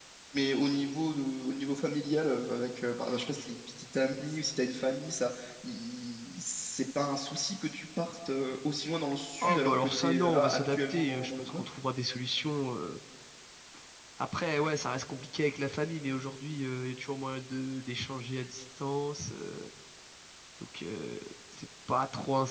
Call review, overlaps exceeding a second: present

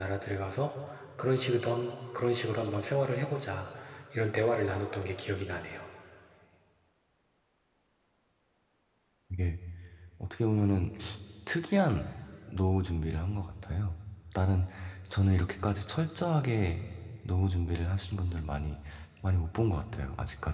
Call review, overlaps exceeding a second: none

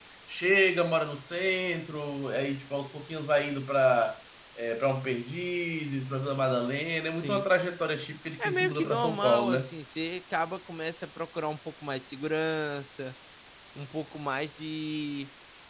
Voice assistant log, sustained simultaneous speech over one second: present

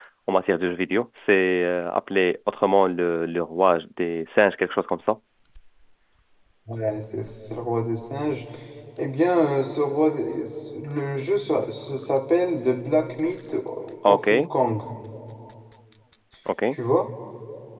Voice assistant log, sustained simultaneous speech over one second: none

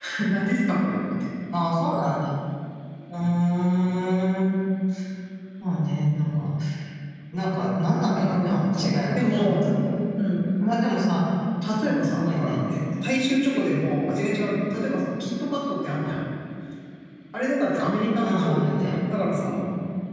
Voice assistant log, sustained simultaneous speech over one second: present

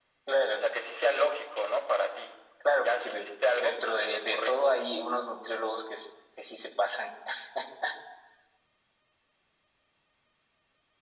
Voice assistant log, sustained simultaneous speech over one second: present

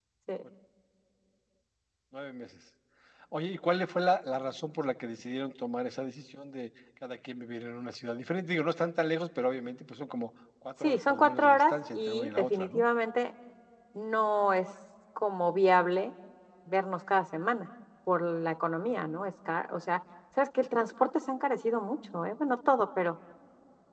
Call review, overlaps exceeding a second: present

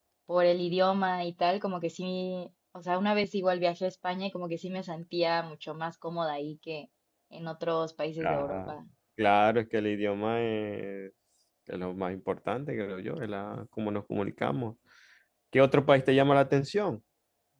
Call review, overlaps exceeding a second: none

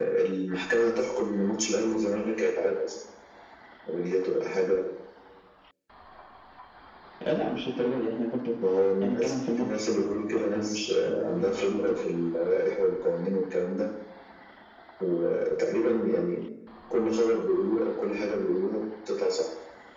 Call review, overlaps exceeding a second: present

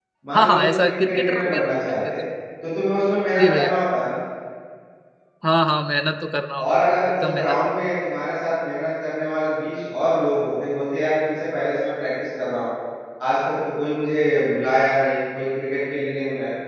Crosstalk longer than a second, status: present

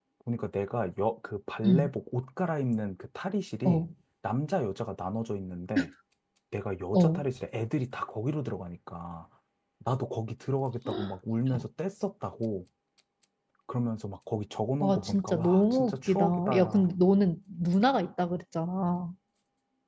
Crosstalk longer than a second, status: present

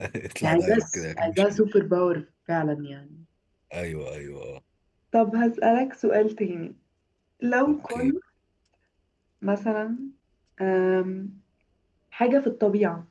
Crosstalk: present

